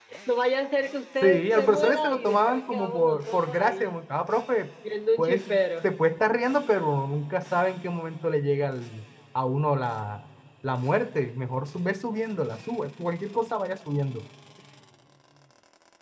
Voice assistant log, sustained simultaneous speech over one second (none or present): present